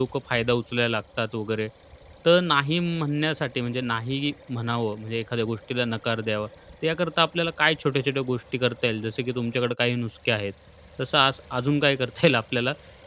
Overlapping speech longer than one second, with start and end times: none

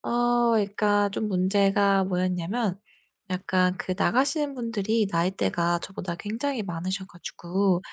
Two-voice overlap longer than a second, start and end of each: none

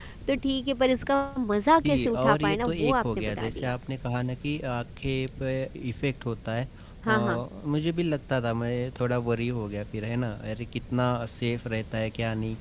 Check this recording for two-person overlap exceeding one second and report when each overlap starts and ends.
1.9-3.7

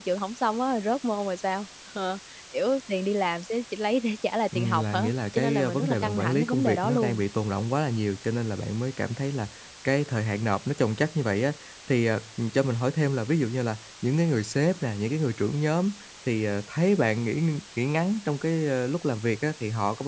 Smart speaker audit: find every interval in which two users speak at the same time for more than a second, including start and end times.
4.5-7.2

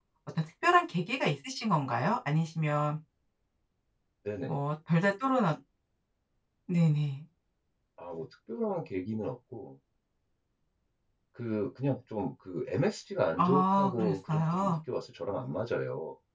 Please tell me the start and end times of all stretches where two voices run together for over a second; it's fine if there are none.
13.4-14.8

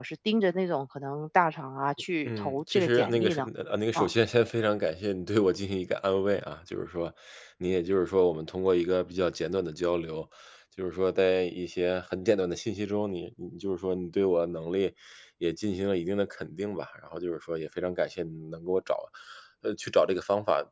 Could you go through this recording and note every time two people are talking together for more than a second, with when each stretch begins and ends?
2.2-3.5

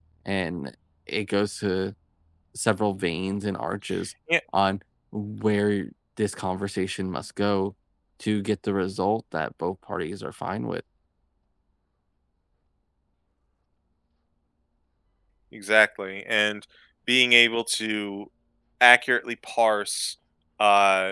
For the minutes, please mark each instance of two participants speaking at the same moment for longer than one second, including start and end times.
none

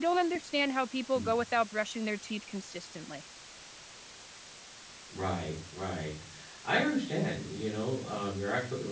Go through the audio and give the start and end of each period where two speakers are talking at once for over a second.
none

